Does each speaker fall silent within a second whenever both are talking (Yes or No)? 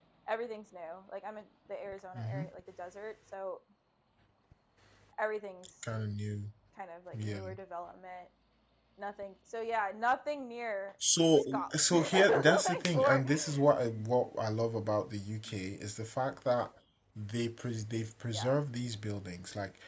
No